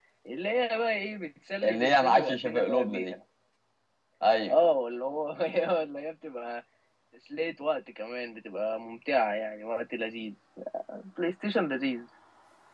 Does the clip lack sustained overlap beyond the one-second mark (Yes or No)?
No